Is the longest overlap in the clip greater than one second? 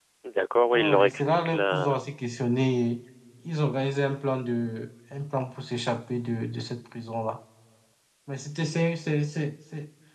Yes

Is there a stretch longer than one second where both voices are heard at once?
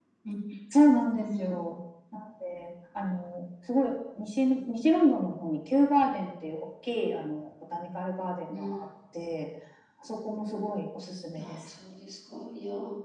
No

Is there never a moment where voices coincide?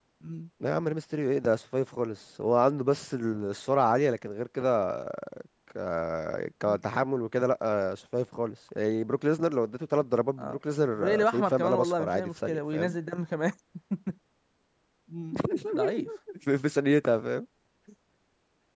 No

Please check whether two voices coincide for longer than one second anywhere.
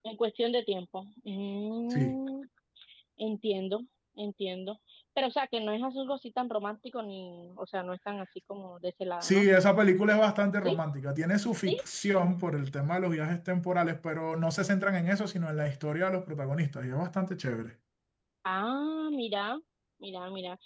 No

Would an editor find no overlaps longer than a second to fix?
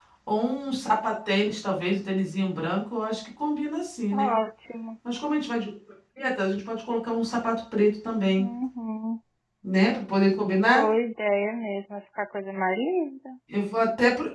Yes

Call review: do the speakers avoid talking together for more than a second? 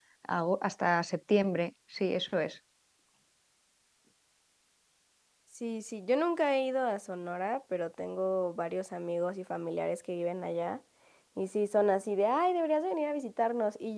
Yes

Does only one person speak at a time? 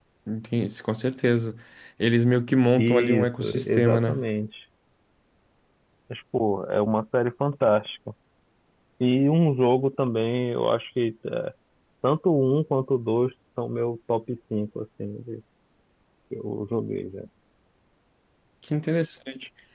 No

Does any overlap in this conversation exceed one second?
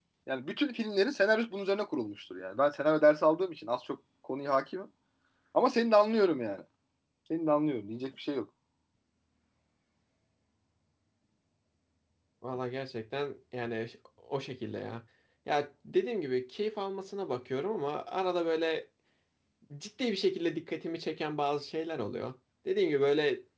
No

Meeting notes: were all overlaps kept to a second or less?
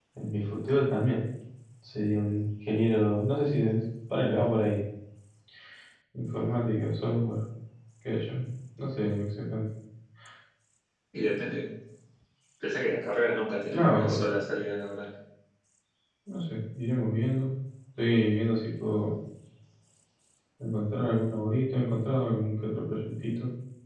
Yes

